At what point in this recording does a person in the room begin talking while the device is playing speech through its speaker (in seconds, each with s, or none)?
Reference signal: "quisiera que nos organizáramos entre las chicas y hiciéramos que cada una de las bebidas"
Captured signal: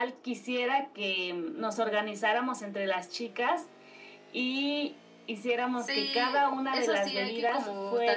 5.7 s